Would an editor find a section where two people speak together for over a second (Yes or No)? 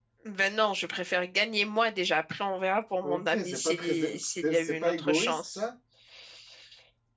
Yes